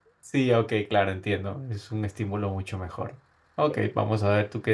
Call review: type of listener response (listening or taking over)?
listening